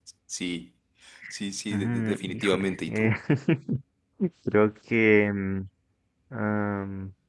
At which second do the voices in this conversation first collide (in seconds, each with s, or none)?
1.7 s